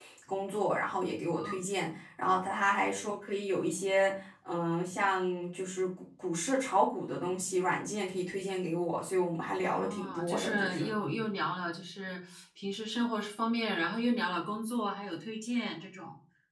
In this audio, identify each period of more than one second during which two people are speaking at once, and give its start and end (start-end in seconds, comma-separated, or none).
9.6-10.9